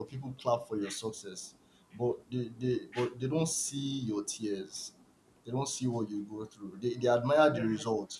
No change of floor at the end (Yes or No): Yes